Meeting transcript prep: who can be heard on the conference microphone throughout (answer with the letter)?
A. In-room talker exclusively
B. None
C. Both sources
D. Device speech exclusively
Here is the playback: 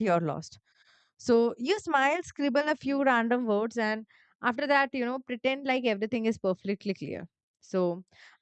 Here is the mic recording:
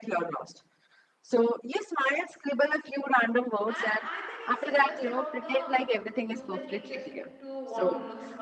C